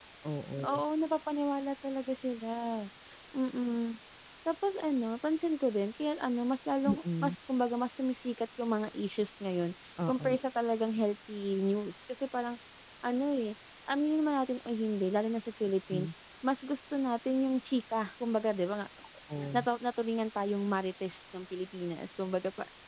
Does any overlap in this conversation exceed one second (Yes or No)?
No